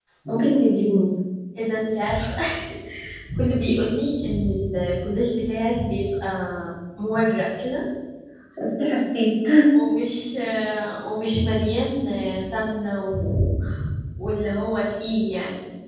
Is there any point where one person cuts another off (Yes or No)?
No